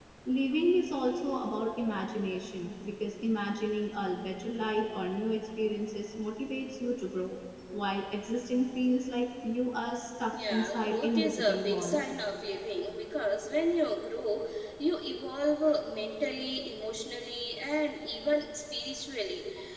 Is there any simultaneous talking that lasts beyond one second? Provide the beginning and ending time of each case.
10.3-12.0

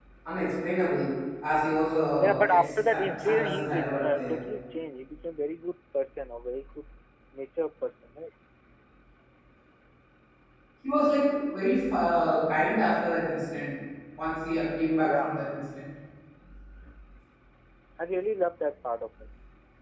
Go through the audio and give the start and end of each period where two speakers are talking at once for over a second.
2.2-4.4

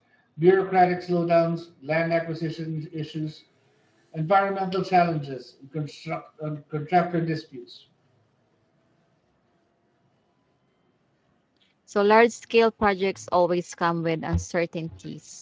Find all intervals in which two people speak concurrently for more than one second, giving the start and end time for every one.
none

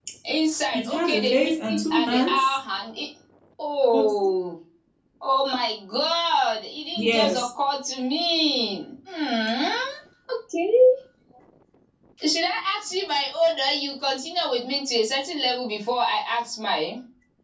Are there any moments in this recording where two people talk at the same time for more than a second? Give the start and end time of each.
0.7-2.6

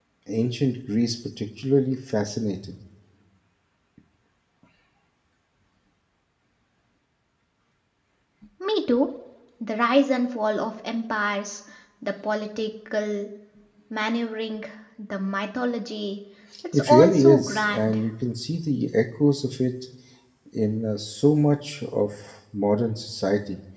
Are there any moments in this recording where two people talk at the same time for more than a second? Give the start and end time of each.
16.7-17.9

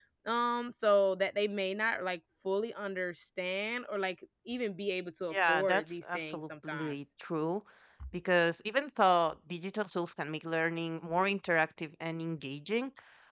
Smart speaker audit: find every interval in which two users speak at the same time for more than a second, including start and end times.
5.3-7.0

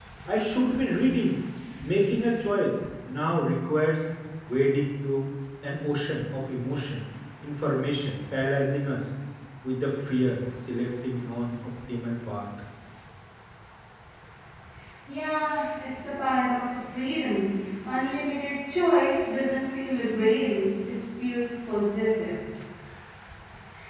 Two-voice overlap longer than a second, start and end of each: none

